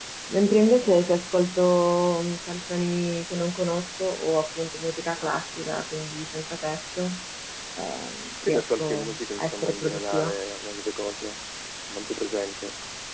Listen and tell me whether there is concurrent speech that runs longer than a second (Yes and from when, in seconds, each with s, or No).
Yes, from 8.4 s